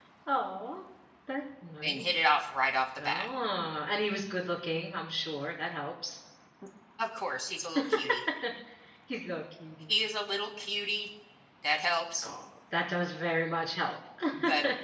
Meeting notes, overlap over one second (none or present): none